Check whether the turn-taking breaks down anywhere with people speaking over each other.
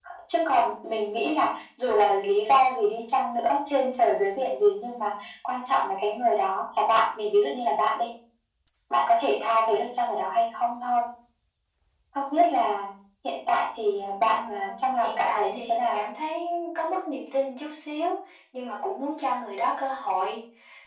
Yes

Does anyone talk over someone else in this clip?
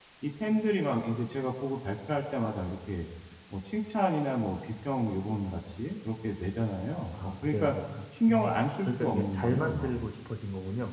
Yes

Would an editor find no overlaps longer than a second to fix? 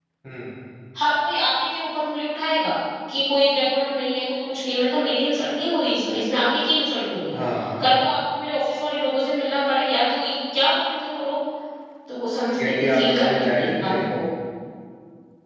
No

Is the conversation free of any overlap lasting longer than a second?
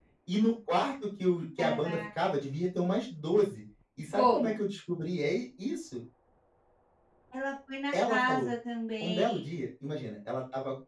Yes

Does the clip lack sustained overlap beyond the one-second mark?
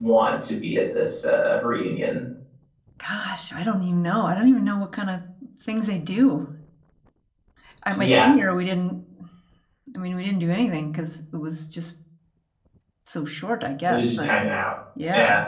Yes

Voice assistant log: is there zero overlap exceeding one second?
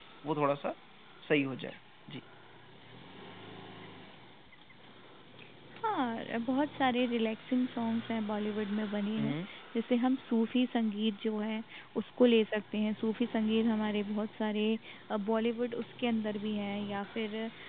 Yes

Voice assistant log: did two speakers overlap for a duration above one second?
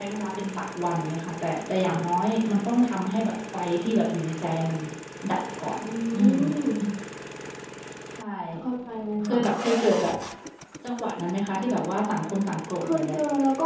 No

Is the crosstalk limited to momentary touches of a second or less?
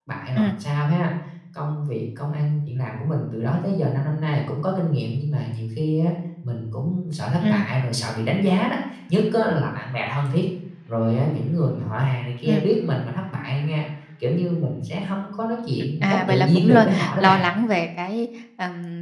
No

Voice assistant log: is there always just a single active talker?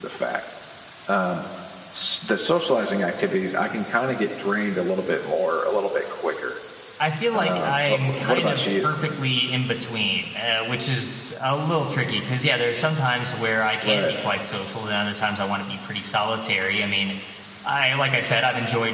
No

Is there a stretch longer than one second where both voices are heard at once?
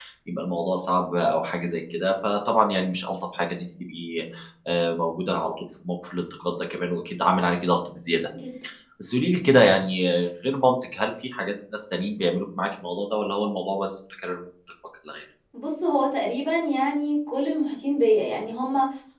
No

